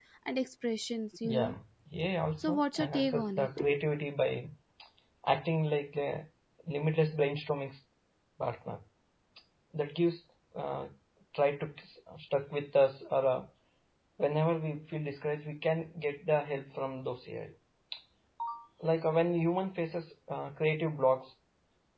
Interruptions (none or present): present